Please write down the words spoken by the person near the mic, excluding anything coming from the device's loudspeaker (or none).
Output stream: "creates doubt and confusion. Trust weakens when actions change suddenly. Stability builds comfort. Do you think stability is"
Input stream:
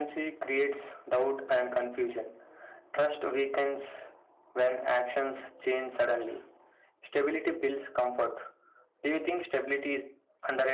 none